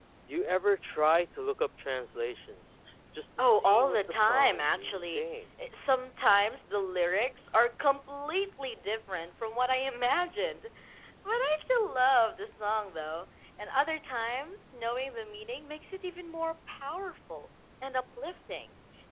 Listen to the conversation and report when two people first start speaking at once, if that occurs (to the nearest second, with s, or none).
3 s